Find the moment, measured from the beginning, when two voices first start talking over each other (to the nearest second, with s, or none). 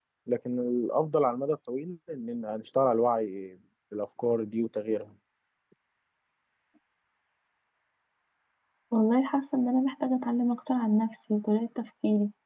none